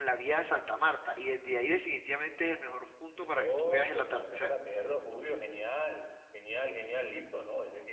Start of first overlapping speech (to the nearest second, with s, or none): 3 s